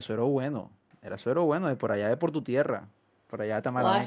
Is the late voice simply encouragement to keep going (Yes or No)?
No